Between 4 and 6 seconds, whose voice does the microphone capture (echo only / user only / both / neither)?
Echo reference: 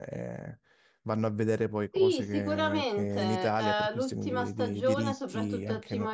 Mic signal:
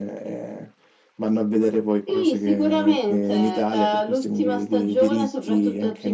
echo only